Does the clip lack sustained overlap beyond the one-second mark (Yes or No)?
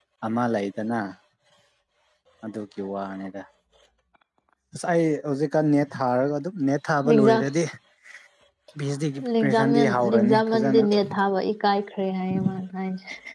No